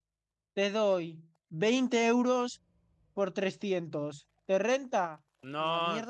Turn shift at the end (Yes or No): Yes